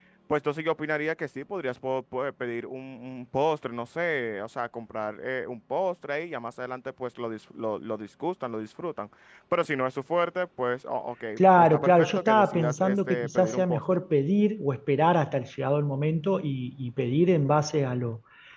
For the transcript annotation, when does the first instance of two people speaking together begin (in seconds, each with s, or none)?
11.4 s